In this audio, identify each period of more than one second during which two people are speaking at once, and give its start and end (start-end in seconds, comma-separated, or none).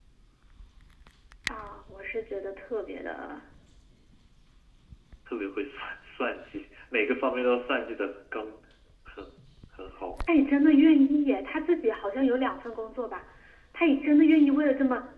none